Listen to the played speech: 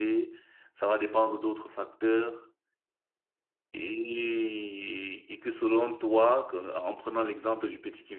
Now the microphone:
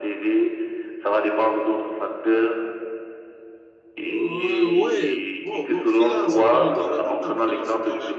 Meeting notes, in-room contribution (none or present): present